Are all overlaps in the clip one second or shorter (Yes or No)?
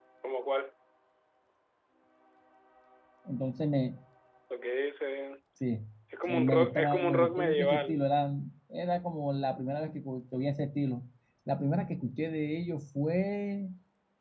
No